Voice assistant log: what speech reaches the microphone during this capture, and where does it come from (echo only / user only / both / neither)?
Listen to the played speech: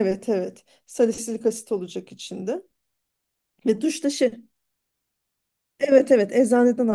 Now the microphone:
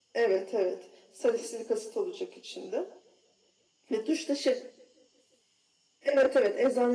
echo only